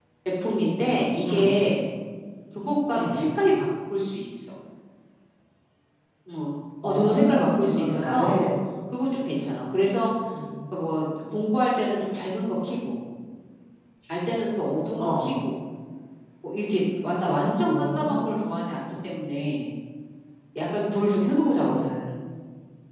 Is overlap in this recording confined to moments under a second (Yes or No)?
No